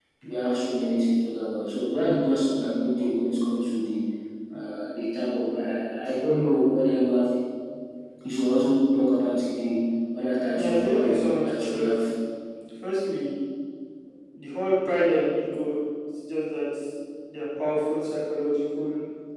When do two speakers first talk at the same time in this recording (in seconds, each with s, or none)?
10.5 s